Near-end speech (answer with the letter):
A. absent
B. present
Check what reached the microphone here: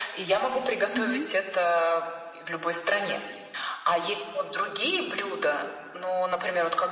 B